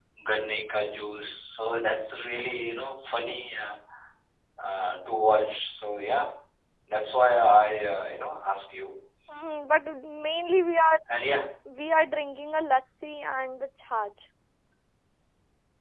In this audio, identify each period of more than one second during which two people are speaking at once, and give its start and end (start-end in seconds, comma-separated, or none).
none